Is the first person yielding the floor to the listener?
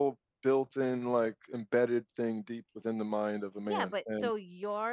Yes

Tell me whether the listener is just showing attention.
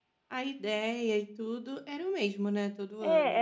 No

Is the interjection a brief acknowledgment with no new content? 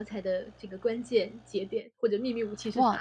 No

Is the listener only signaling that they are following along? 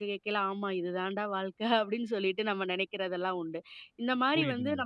Yes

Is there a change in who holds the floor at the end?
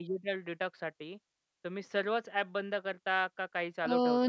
Yes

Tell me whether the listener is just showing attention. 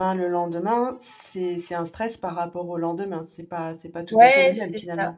No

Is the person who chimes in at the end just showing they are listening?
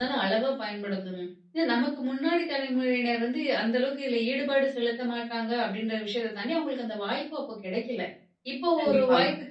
Yes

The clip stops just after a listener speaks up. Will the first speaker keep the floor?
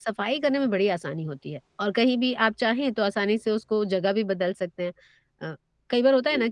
Yes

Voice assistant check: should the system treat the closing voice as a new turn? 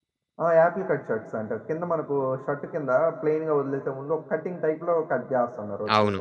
Yes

